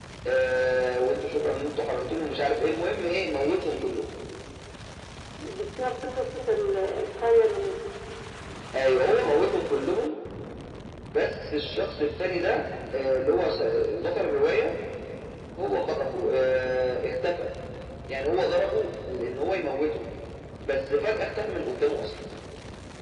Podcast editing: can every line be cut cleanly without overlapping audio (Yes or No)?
Yes